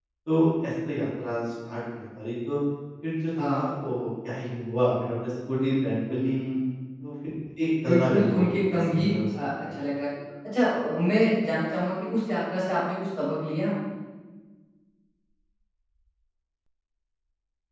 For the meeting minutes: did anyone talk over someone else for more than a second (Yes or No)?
Yes